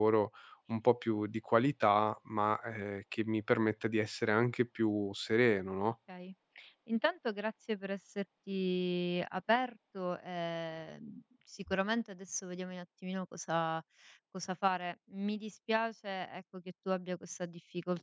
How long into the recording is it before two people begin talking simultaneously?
none

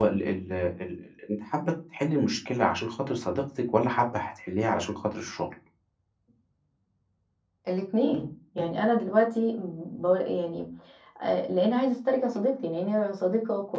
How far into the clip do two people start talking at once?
none

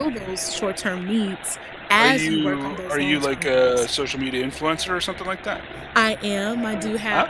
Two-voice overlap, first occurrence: 2 s

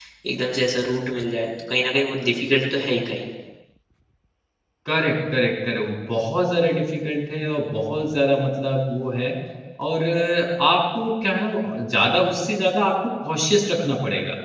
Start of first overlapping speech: none

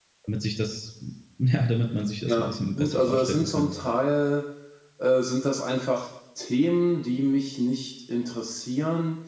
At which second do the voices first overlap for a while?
2 s

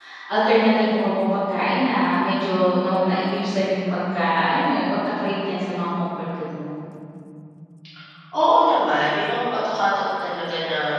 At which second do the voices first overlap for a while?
none

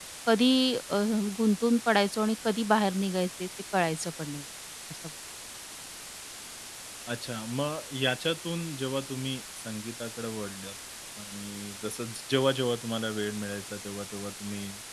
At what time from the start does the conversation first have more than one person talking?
none

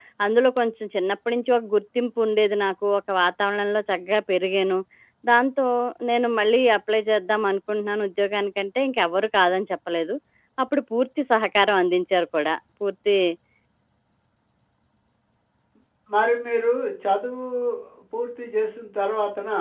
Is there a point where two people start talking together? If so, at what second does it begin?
none

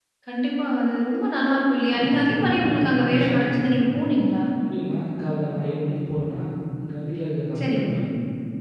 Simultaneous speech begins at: 2 s

